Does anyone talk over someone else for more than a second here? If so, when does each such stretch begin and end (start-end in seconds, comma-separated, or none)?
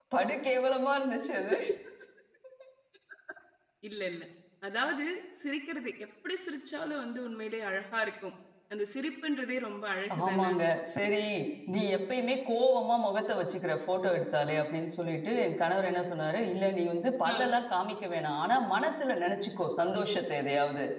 none